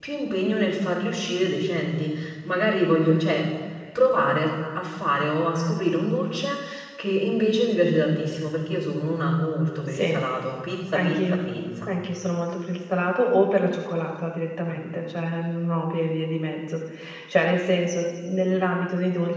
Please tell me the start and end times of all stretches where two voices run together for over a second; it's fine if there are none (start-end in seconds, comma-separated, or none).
none